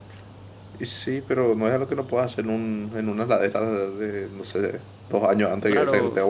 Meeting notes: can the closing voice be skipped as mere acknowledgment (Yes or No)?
No